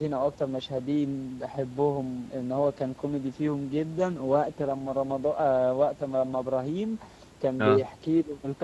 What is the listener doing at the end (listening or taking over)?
listening